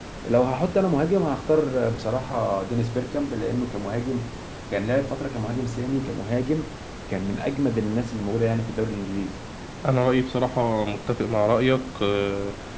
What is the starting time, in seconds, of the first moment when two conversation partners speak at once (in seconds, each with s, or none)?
none